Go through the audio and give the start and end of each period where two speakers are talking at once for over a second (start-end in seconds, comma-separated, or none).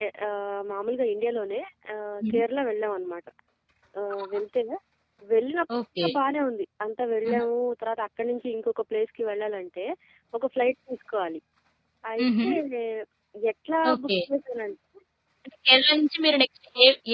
none